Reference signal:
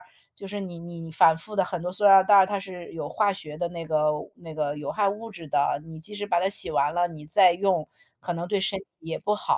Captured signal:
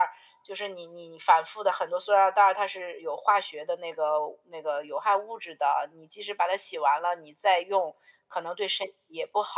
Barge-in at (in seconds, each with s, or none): none